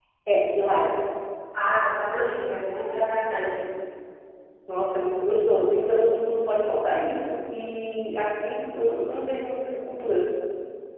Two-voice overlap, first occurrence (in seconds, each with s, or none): none